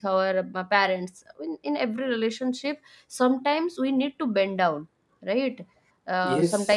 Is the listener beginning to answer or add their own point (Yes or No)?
No